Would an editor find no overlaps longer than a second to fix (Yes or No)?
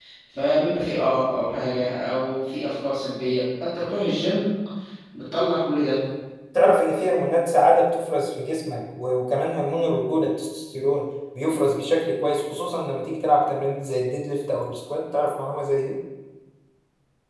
Yes